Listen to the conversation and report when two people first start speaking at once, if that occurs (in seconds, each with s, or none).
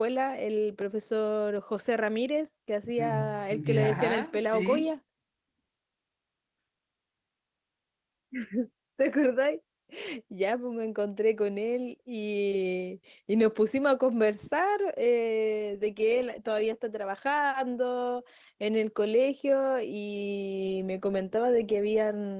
3.0 s